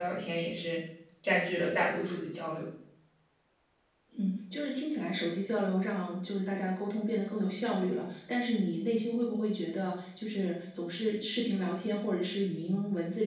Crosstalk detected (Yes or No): No